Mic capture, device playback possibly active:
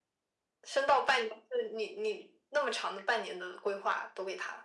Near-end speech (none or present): none